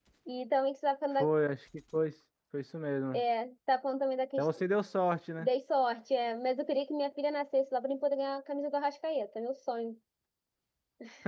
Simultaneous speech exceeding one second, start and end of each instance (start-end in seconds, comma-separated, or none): none